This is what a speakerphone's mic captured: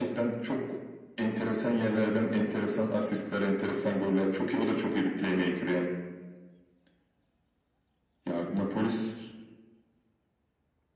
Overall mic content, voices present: echo only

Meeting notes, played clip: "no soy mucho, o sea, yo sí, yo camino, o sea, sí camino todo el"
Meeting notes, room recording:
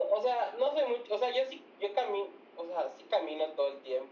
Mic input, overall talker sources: echo only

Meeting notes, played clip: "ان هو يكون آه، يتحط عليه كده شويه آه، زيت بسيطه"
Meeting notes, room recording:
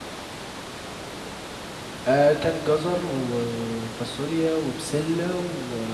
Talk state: user only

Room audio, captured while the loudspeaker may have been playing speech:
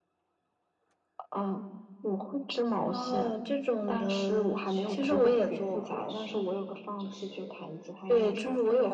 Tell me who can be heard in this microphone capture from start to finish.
both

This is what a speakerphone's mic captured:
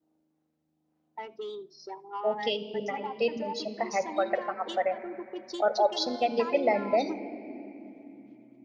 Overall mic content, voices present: both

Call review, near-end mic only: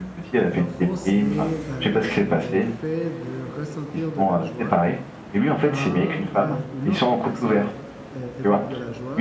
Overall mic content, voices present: both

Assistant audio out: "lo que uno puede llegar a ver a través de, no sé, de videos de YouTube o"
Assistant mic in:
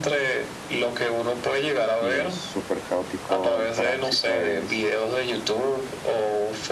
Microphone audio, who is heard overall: both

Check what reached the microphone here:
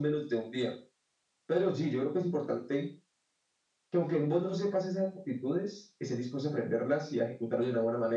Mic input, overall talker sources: echo only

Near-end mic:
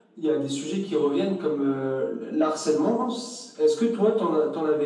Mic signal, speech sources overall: echo only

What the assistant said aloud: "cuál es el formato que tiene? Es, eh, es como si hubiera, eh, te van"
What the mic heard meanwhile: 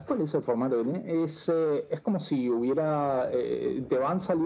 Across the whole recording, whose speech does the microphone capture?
echo only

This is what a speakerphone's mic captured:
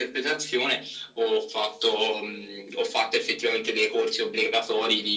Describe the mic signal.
echo only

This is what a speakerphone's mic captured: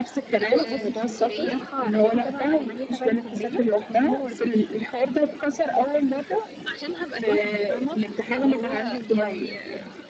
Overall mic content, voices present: both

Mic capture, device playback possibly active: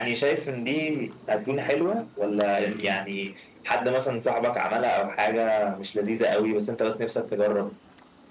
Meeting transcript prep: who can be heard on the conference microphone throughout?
both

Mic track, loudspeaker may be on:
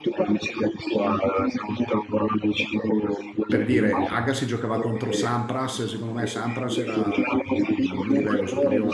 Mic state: both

